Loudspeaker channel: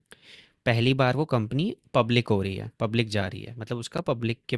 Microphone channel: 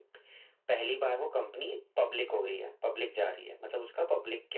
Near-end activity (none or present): none